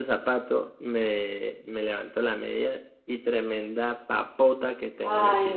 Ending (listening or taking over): taking over